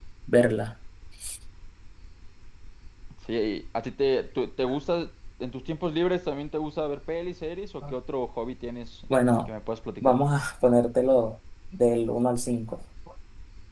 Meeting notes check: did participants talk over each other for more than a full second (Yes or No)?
No